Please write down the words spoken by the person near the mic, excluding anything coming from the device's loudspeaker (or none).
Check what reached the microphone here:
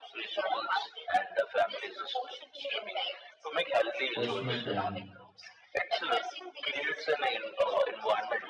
testament and